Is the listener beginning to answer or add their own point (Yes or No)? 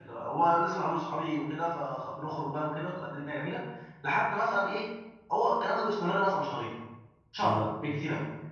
No